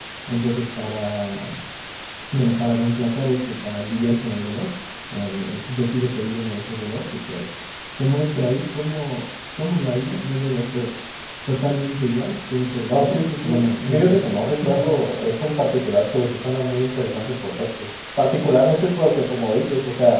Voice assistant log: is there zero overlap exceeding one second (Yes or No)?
No